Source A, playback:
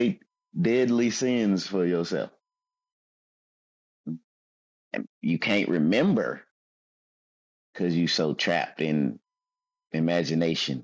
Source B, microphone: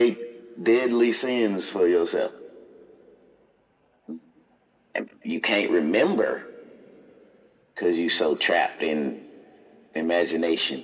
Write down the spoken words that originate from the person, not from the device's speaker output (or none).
none